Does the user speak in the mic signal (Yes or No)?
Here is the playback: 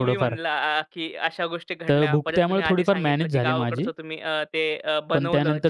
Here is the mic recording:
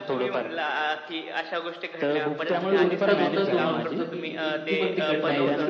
Yes